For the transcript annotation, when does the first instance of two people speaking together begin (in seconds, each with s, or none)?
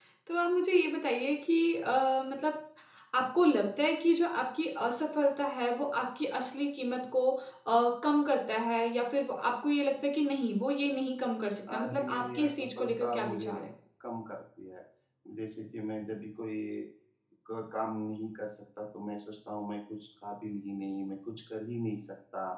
11.7 s